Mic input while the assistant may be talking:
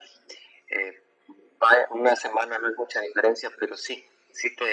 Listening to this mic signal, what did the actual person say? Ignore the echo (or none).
none